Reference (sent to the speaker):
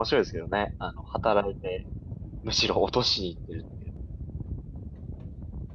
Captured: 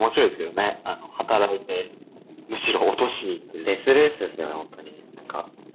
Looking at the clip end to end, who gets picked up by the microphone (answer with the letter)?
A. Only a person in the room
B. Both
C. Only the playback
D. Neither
B